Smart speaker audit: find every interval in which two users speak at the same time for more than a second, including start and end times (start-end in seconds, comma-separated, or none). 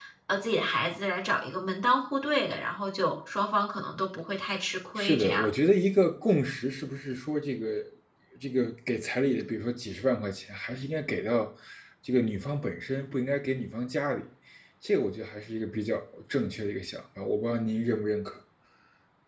none